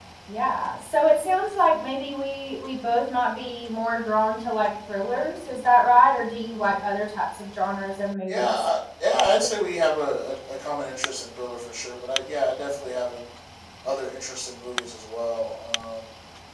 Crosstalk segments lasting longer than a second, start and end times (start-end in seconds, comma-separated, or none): none